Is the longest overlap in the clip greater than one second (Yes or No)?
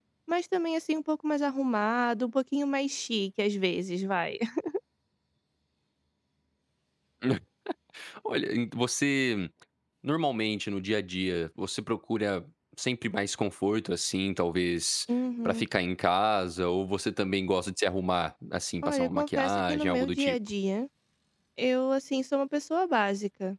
Yes